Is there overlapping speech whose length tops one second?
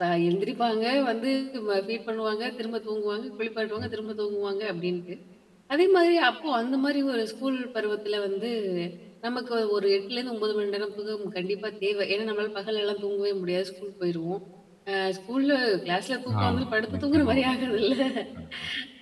Yes, from 16.3 s

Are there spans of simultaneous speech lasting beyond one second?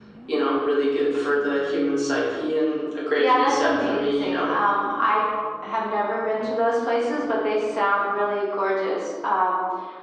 Yes, from 3.1 s

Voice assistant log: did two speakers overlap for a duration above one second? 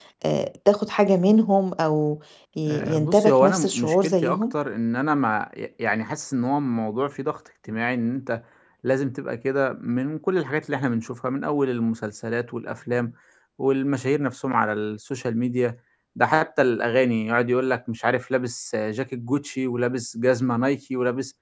Yes, from 2.7 s

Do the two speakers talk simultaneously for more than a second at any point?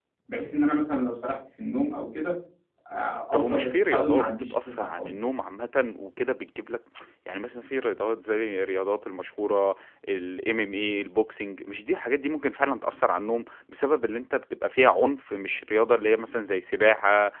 Yes, from 3.3 s

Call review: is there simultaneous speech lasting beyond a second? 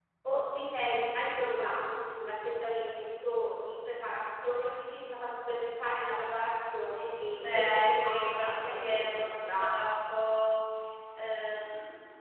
Yes, from 7.4 s

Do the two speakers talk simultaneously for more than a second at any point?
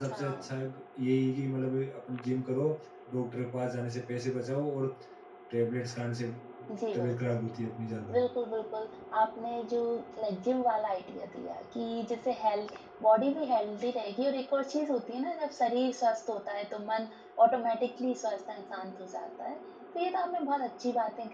No

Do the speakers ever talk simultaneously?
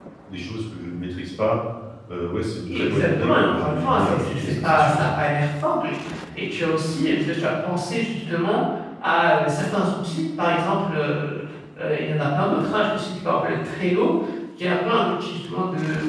Yes, from 2.6 s

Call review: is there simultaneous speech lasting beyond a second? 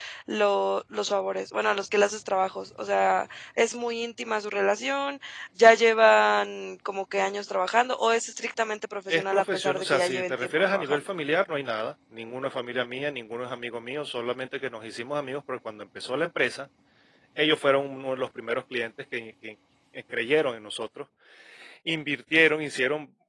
Yes, from 9.1 s

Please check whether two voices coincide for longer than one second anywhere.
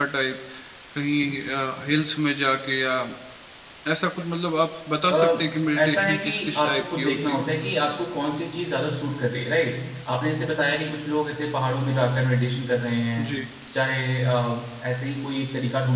Yes, from 5.1 s

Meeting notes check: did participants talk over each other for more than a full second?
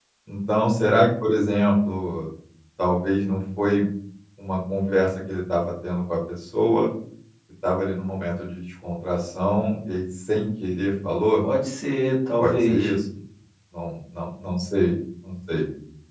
No

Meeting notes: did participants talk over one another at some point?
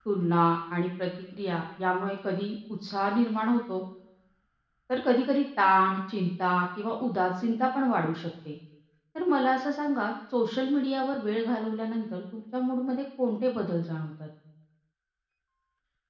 No

